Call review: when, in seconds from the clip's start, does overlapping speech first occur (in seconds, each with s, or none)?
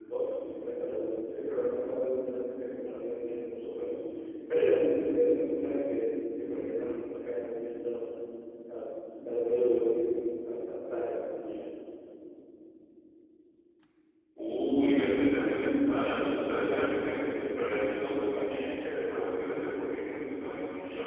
none